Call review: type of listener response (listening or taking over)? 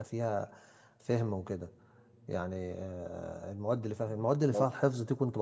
listening